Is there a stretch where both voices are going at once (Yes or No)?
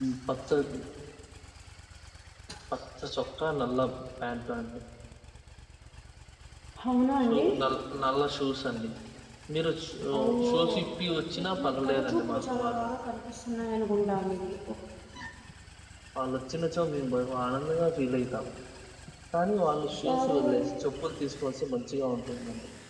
Yes